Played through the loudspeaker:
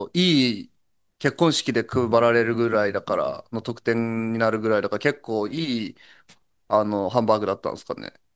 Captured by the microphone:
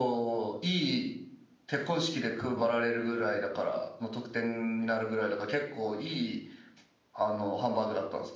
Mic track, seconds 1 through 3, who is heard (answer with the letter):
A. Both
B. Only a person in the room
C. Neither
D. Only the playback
D